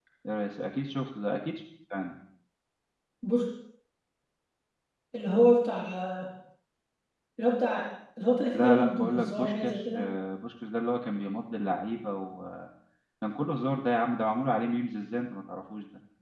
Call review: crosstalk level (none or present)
present